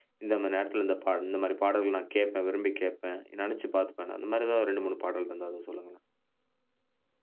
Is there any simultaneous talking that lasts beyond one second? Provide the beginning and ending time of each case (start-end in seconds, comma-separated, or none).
none